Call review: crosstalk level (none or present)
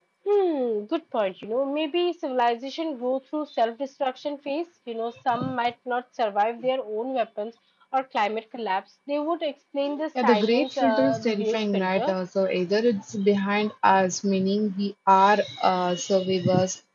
present